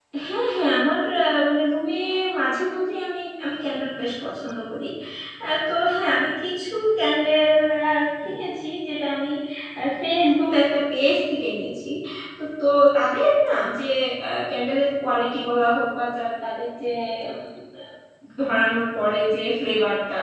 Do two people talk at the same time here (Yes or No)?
No